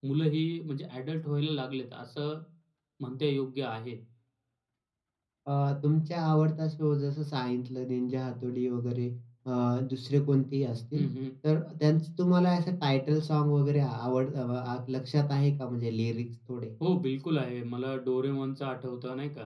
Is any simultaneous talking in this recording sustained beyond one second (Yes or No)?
No